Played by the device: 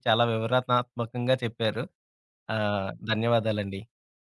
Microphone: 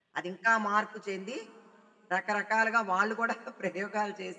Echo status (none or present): none